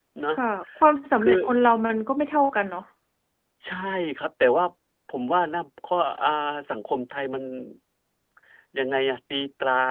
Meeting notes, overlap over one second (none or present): none